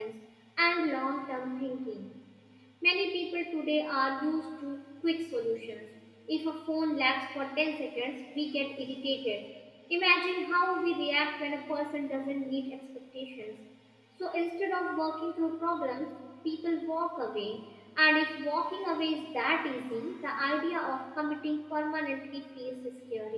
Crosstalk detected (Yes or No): No